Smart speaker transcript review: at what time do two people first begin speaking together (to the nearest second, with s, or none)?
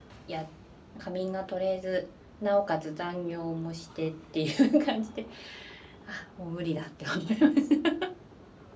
none